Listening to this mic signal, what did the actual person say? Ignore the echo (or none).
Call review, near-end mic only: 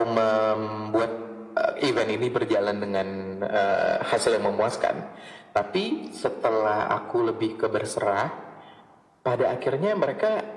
none